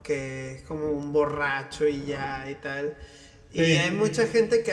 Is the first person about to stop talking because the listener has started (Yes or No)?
No